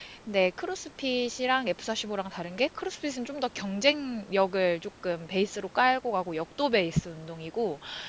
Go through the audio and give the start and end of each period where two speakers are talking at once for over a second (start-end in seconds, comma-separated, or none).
none